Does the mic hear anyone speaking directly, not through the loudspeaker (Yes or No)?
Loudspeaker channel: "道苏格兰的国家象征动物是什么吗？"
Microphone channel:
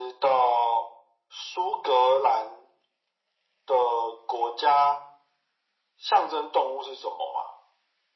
No